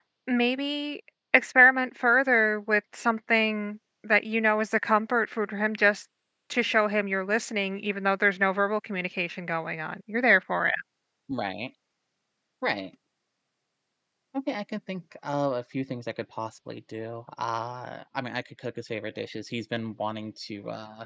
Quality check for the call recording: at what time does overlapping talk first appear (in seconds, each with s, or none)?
none